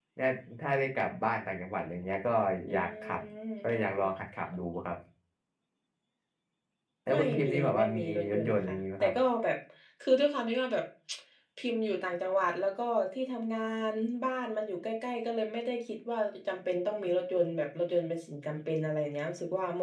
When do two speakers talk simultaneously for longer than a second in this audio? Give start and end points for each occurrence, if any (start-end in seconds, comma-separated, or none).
7.1-9.1